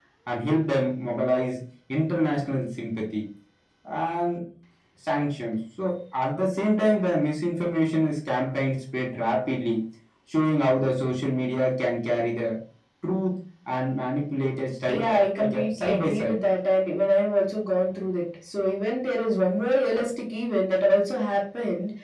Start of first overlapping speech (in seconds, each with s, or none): 14.9 s